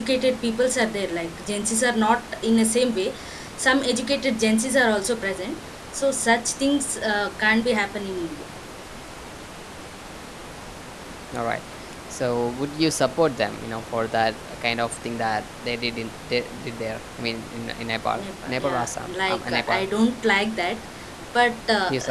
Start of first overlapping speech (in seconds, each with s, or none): 18.2 s